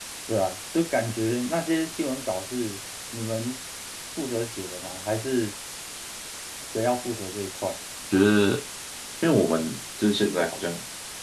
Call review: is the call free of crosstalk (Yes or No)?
Yes